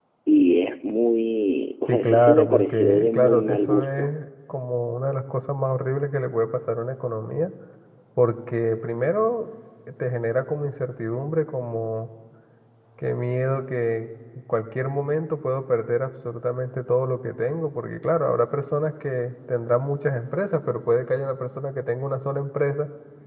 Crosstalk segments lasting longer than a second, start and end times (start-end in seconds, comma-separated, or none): 1.9-4.1